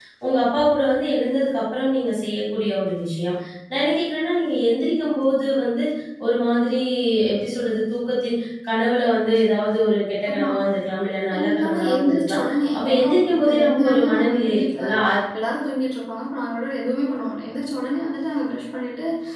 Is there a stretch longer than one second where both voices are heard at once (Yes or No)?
Yes